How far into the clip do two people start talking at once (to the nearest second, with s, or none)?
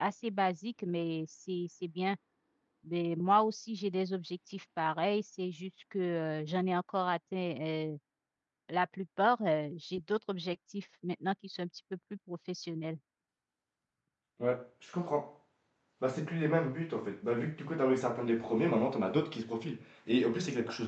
none